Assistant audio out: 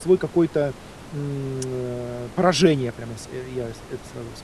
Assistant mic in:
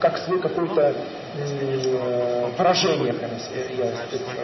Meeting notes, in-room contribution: present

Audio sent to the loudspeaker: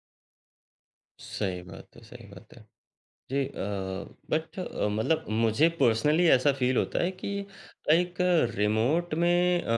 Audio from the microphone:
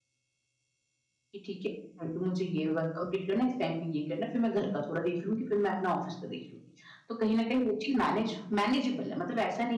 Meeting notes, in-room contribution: present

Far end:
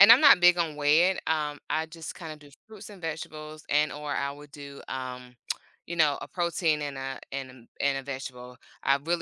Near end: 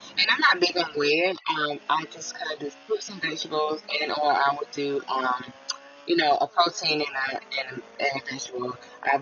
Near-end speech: none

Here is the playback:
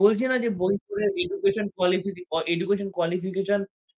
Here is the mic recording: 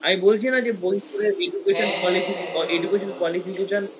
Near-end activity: present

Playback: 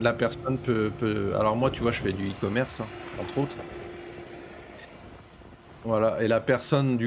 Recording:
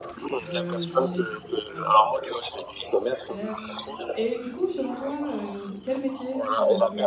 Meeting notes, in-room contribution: present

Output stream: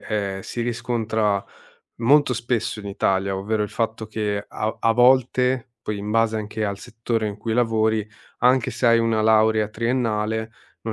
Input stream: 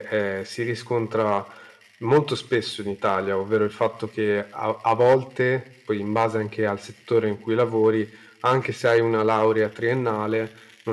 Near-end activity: none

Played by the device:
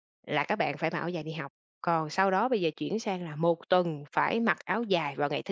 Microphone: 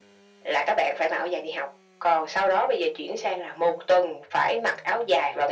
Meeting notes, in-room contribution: none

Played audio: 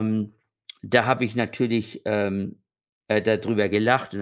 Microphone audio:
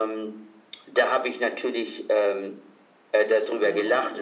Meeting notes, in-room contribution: present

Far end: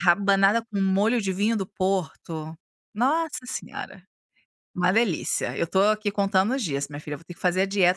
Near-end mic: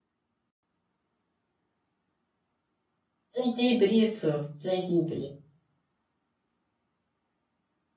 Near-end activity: present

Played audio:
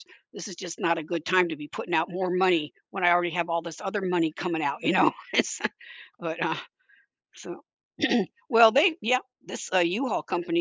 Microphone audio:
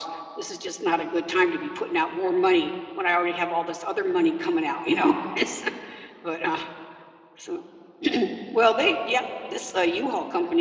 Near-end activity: none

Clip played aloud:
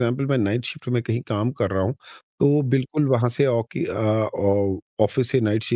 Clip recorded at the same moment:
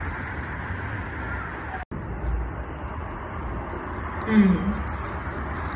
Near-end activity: present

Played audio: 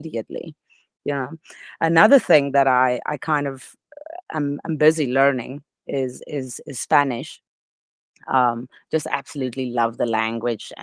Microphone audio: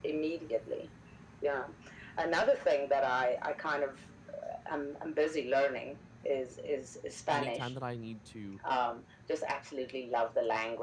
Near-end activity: present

